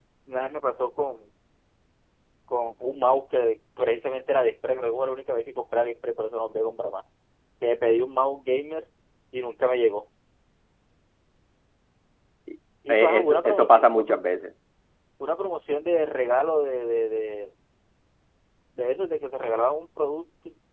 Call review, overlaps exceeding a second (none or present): present